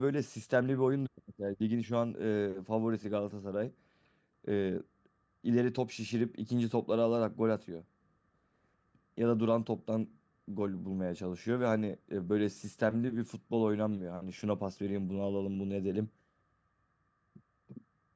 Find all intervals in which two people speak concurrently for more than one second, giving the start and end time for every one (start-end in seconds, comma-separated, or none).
none